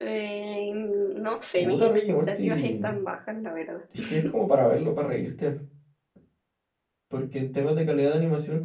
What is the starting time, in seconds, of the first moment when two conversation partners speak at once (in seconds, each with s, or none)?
1.5 s